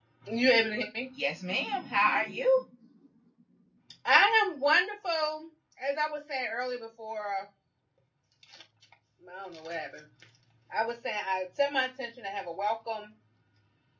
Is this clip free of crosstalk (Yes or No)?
Yes